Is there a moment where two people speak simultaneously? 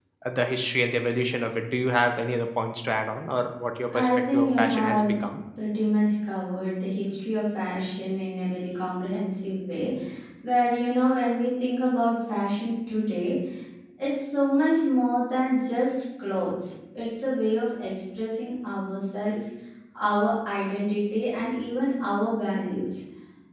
Yes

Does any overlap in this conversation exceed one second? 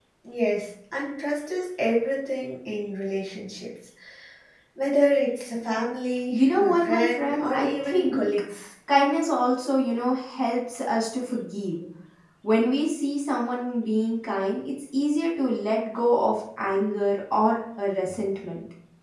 Yes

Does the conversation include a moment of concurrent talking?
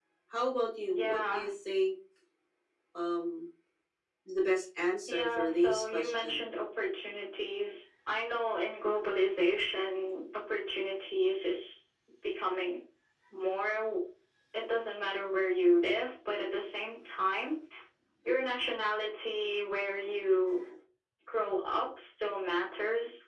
Yes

